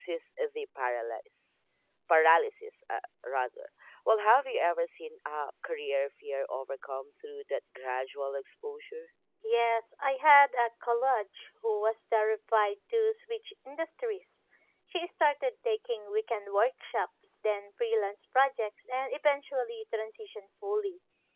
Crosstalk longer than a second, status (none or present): none